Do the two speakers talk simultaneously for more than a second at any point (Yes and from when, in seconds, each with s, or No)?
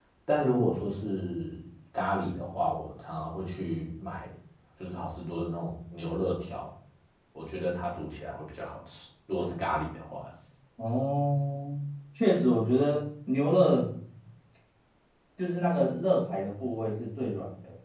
No